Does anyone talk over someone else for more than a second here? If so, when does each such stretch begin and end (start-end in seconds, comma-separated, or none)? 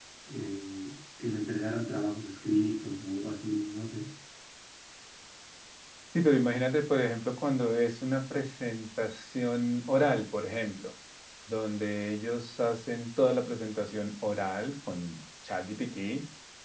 none